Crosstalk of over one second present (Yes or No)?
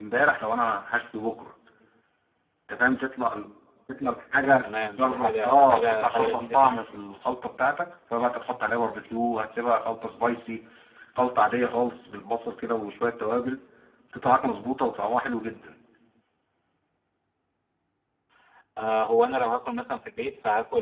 Yes